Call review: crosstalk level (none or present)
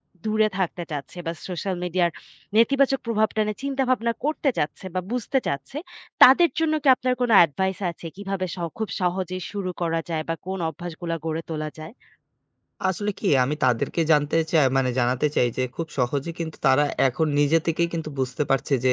none